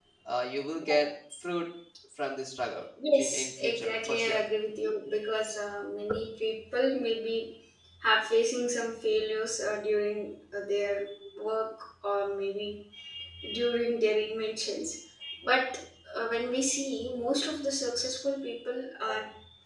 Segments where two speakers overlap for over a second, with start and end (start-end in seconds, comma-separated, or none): 3.2-4.4